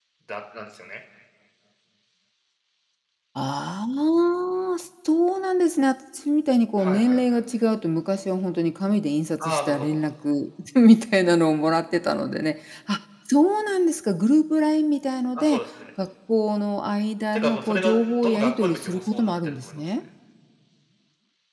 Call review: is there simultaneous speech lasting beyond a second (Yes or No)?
Yes